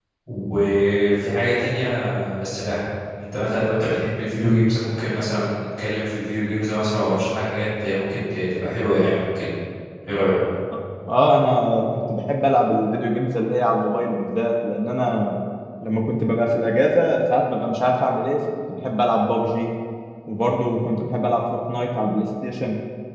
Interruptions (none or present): none